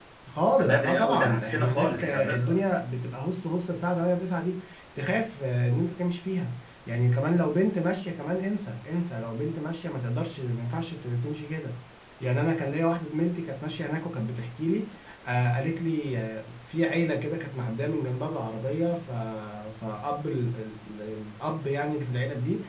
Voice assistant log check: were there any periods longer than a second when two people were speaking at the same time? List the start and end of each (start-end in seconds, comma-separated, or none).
0.6-2.6